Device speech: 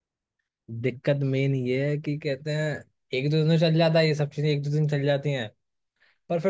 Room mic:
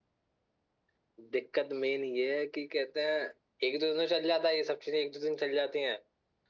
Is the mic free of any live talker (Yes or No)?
Yes